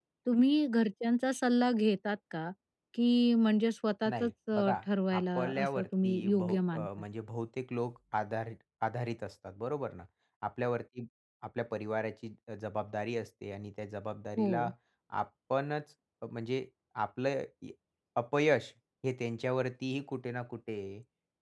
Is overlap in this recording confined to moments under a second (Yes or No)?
No